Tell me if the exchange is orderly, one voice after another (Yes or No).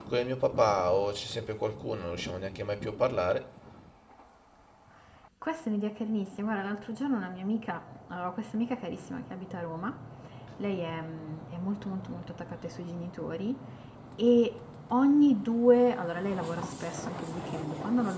Yes